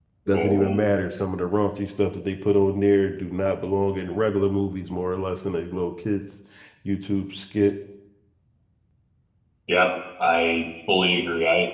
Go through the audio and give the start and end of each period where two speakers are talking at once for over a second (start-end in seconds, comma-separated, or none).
none